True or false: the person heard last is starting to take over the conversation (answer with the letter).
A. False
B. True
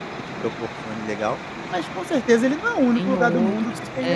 B